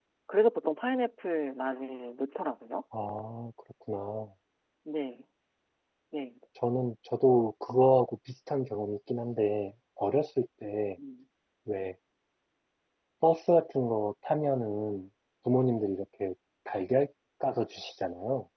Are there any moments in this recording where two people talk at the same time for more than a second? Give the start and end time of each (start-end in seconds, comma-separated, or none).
none